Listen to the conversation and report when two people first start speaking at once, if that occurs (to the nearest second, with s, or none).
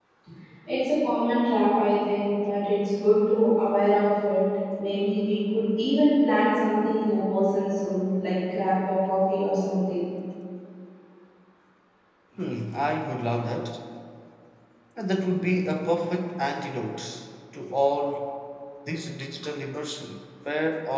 none